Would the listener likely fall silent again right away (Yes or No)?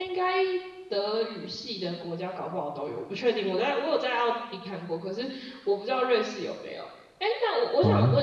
Yes